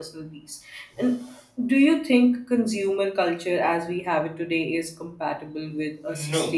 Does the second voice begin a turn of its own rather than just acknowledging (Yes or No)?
Yes